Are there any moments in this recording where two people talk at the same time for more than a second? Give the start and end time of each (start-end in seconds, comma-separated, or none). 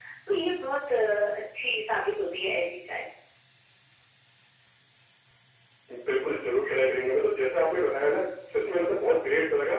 none